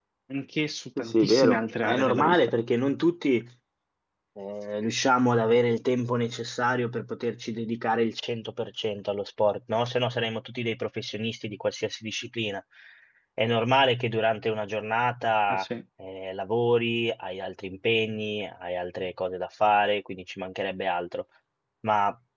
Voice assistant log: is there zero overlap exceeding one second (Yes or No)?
No